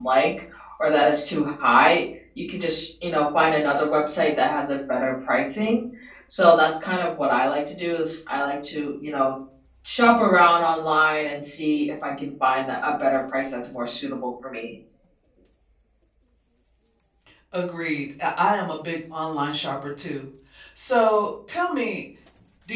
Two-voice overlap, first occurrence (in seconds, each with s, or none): none